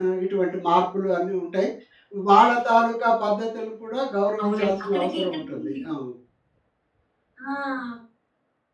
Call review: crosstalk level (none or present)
present